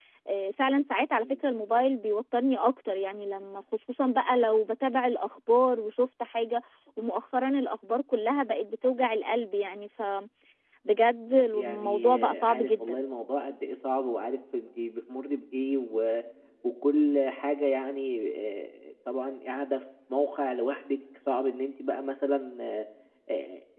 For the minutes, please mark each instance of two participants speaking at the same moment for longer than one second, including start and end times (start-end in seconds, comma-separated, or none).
11.6-13.0